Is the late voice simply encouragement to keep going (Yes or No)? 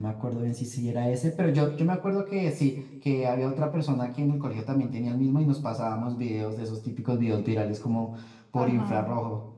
No